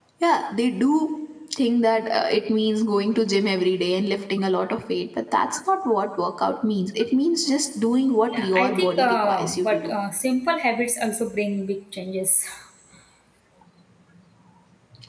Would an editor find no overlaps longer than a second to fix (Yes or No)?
No